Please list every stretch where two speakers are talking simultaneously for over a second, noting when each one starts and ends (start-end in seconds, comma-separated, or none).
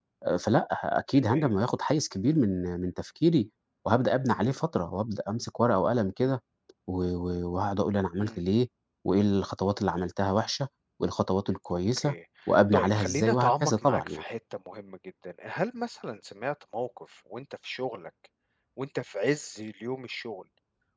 12.7-14.2